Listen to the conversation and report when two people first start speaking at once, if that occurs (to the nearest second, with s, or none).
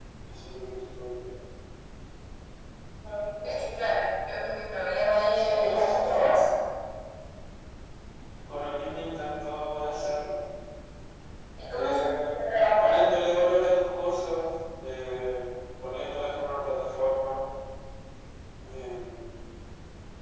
5 s